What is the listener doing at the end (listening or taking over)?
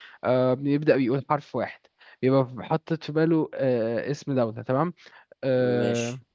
listening